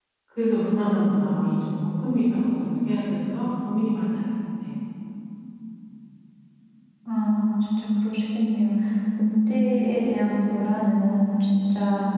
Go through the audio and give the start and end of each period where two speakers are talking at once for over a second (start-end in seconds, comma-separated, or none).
none